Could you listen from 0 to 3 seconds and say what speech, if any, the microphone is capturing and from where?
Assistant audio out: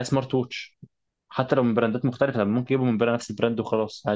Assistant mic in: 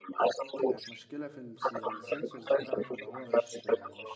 both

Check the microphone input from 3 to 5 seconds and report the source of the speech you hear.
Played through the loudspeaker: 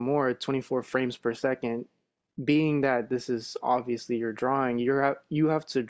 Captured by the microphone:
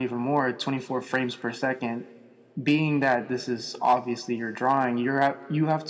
echo only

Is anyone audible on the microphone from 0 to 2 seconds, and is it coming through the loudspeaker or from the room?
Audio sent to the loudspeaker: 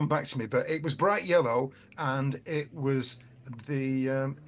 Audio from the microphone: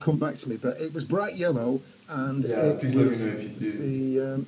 echo only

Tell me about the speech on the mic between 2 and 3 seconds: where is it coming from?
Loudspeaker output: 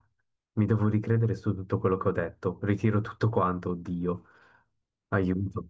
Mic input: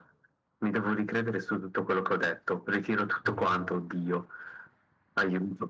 echo only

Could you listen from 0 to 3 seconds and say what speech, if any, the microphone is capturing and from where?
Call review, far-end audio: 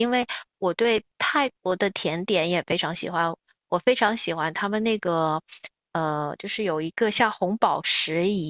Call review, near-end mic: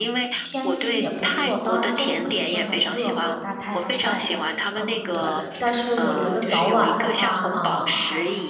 both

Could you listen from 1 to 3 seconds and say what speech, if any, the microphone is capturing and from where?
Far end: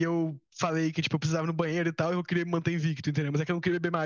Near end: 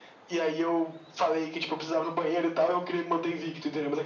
echo only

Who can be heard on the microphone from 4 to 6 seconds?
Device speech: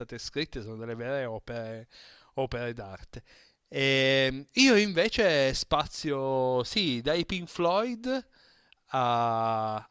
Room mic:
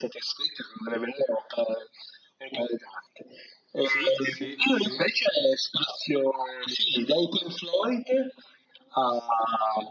both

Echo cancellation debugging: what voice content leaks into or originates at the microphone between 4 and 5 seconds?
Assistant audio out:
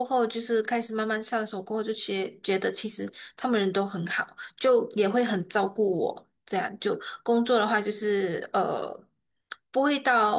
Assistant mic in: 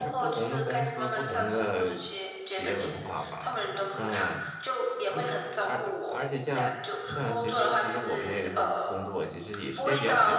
both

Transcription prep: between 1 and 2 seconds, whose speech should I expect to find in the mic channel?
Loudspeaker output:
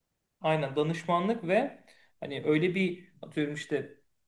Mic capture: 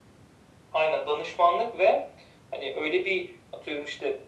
echo only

